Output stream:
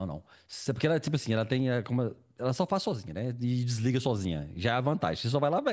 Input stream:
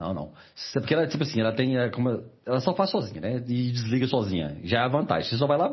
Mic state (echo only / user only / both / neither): echo only